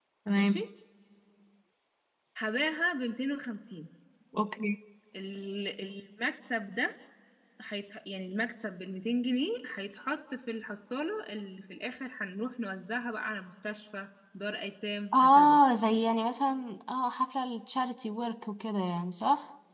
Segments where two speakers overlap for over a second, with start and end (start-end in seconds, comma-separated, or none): none